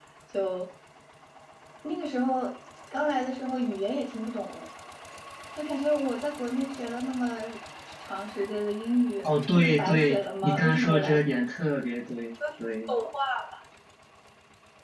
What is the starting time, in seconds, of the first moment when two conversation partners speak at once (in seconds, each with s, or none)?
9.2 s